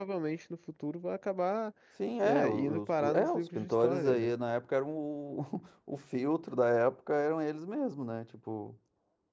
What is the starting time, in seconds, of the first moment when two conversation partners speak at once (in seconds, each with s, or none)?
2.2 s